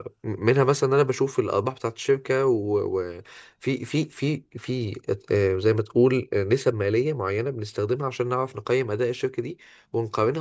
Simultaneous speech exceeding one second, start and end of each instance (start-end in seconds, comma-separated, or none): none